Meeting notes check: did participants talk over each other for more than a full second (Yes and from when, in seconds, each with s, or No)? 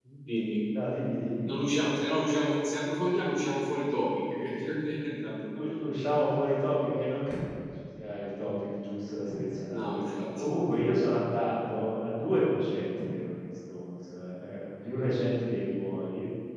No